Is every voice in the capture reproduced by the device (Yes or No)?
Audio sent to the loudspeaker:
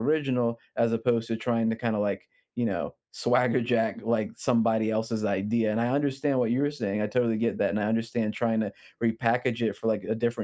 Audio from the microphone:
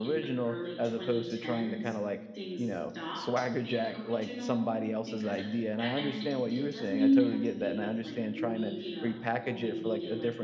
No